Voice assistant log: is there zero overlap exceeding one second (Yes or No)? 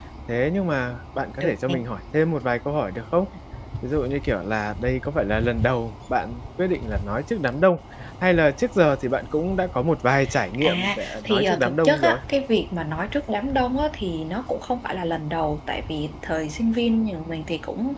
No